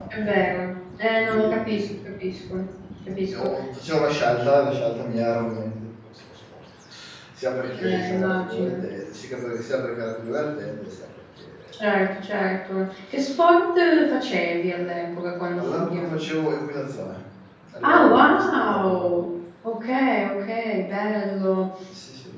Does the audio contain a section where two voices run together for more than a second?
Yes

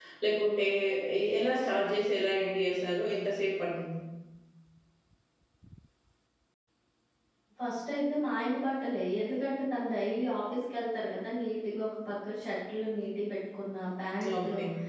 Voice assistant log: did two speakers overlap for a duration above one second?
No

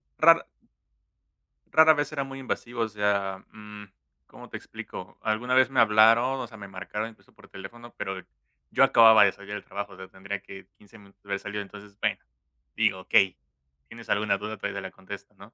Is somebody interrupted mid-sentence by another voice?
No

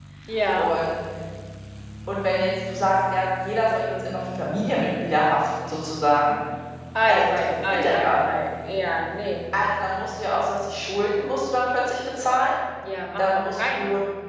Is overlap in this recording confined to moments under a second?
No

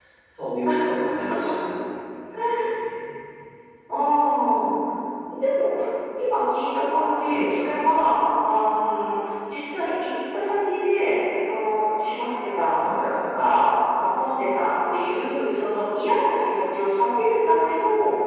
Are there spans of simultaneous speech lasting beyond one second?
No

